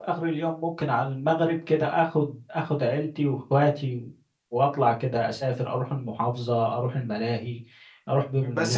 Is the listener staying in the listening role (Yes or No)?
No